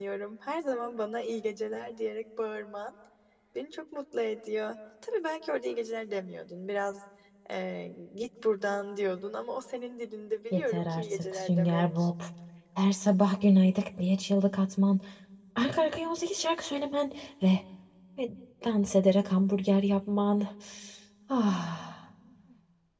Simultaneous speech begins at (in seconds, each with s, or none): 10.5 s